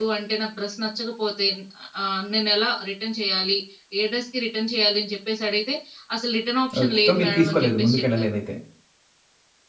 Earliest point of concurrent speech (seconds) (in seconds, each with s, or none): 6.8 s